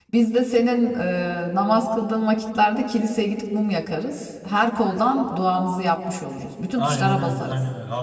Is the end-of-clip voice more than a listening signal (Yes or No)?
Yes